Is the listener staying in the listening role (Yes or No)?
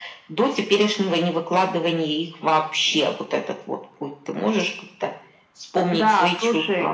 No